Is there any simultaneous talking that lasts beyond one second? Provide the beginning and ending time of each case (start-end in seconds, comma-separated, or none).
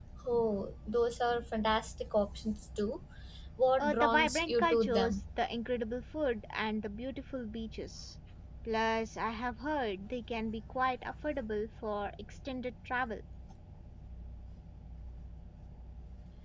3.8-5.2